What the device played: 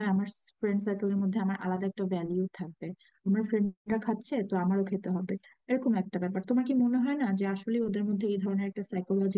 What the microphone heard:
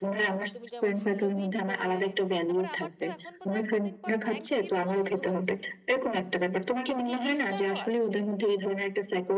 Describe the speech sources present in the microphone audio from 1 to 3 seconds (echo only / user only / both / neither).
both